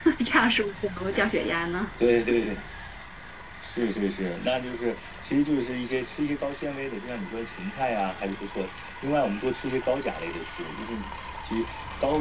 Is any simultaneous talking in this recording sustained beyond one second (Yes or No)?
No